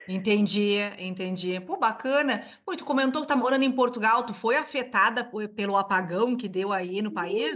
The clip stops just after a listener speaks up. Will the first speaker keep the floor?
No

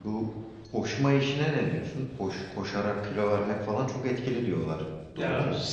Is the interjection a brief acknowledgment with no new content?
No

